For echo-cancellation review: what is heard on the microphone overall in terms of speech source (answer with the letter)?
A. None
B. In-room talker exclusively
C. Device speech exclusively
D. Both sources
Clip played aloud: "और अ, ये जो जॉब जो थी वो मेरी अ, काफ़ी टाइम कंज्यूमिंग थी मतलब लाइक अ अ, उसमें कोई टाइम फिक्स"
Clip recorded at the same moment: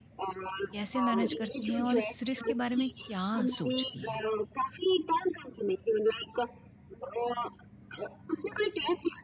D